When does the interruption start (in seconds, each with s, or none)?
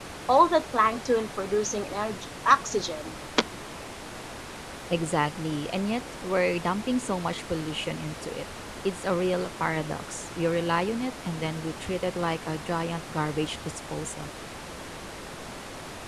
none